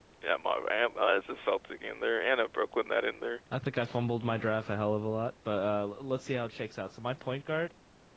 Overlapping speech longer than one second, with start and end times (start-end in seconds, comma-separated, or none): none